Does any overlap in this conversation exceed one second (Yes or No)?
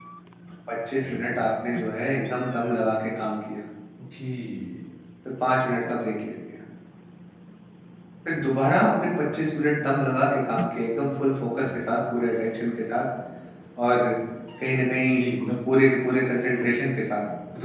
No